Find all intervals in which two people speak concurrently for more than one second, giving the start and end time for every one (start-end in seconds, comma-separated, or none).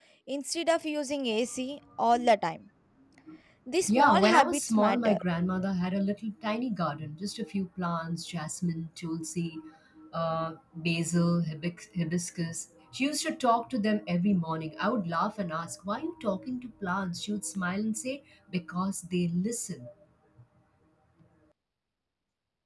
3.9-5.2